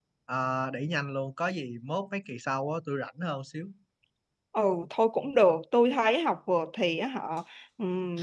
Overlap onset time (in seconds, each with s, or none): none